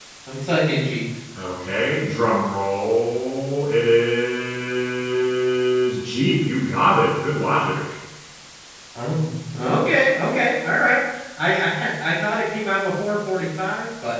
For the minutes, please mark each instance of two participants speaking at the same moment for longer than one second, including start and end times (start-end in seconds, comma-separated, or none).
none